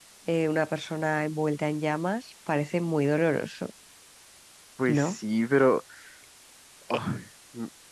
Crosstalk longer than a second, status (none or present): none